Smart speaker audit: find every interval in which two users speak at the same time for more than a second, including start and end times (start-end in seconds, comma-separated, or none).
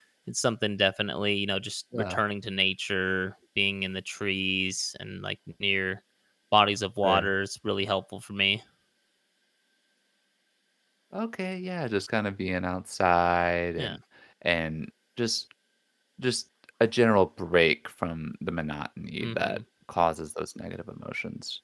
none